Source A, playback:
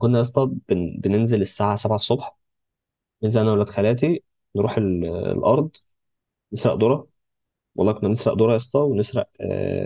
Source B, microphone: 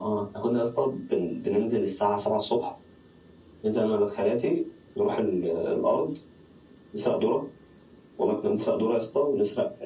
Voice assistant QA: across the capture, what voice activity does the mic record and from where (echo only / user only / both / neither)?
echo only